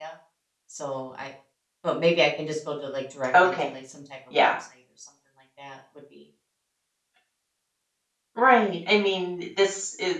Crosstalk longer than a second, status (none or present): none